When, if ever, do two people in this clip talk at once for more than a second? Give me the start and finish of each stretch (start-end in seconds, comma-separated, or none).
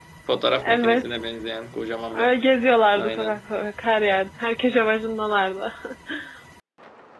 none